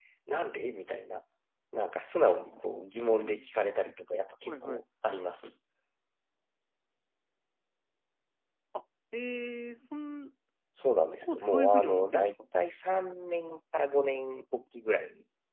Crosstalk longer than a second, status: present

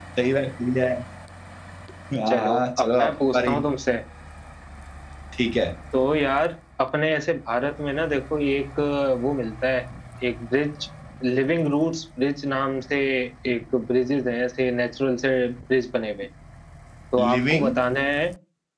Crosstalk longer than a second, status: present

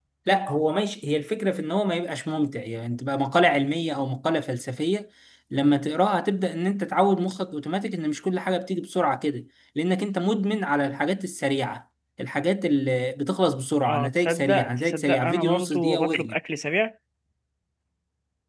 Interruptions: present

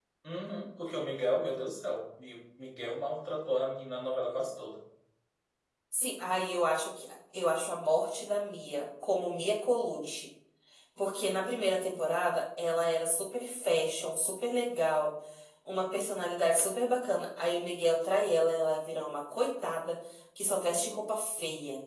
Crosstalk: none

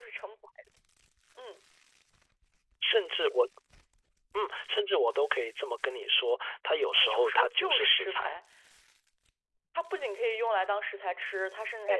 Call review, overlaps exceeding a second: present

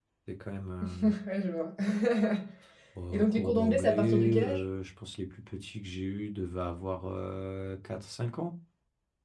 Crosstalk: present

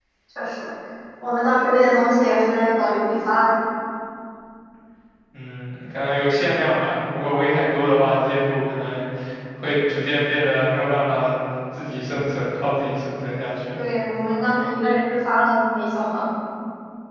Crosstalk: none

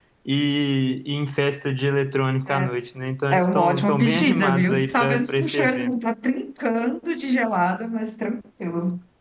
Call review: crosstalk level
present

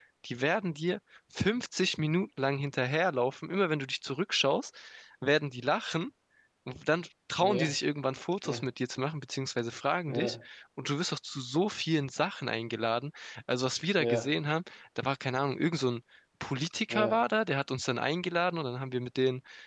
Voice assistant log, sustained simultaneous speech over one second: none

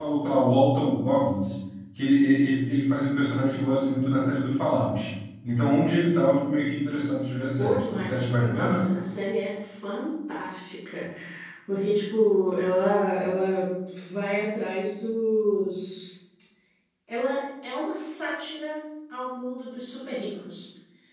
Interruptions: present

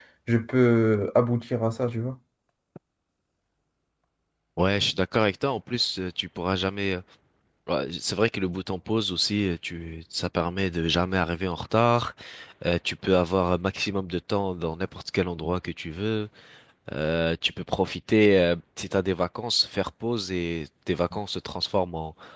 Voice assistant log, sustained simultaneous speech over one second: none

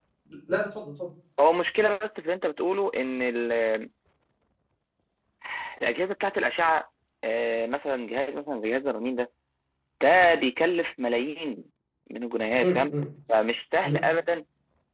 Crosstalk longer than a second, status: none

